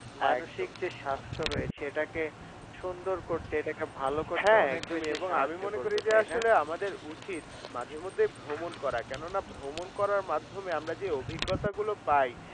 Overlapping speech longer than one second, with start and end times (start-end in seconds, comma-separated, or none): 4.5-6.4